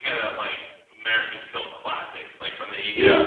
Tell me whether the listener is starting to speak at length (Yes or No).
No